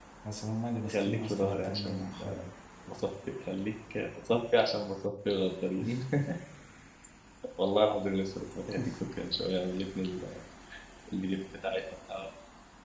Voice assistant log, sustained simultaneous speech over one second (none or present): present